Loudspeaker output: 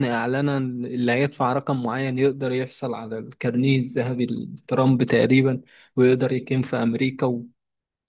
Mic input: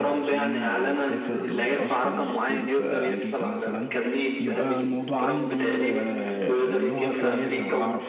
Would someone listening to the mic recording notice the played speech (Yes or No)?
Yes